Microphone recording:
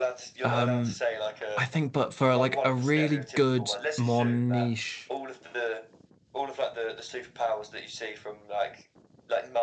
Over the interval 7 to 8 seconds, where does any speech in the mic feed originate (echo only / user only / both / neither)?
echo only